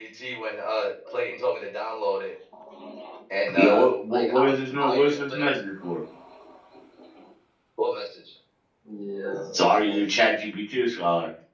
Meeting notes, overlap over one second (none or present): present